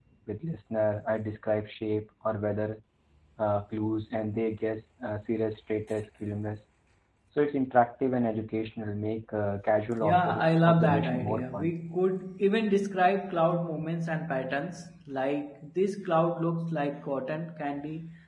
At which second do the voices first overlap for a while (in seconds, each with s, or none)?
10.0 s